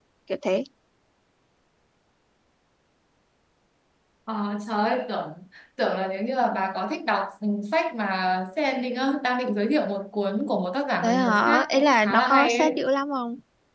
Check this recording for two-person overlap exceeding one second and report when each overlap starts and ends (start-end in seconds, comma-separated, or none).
11.0-12.8